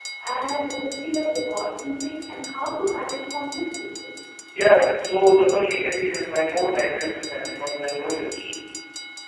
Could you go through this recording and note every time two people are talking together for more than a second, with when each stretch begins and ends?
none

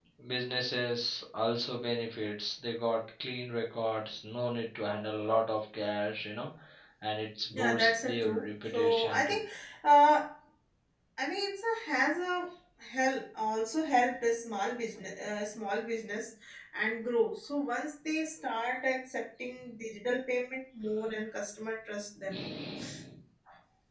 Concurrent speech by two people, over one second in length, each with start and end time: 7.5-9.4

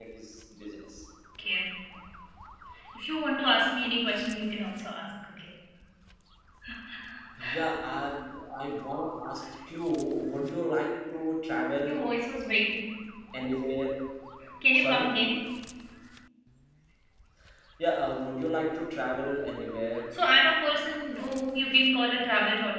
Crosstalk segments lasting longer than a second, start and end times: none

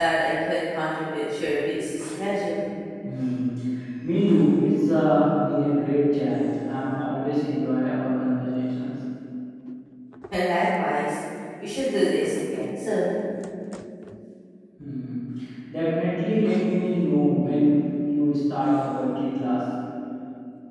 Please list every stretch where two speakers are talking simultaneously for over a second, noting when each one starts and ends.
none

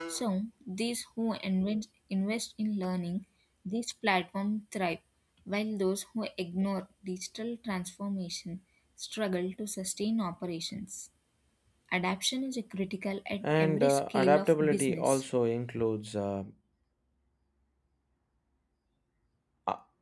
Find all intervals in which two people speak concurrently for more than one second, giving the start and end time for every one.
13.4-15.2

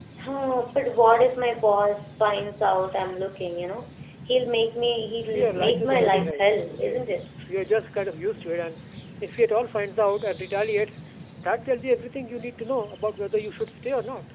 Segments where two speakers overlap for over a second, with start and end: 5.2-7.2

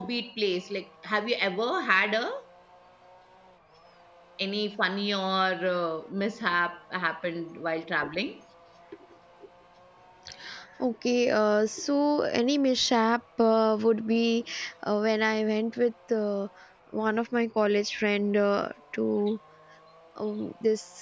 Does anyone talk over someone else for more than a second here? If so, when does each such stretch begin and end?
none

